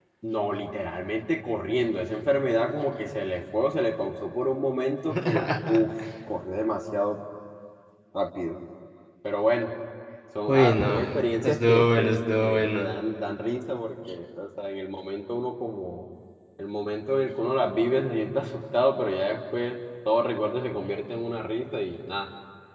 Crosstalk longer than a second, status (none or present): present